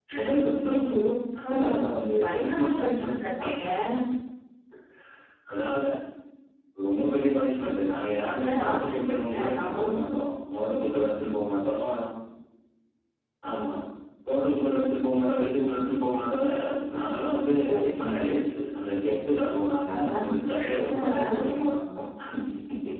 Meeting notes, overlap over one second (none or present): present